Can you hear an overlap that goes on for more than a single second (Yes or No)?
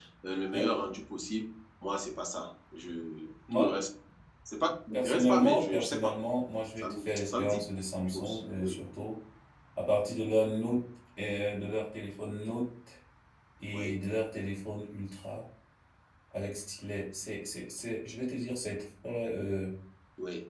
Yes